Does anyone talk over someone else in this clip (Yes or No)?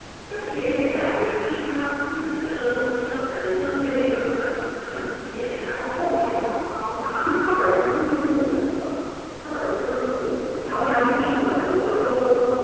Yes